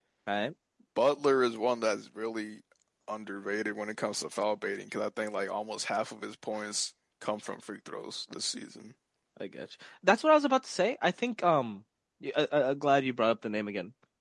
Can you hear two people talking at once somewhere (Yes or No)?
No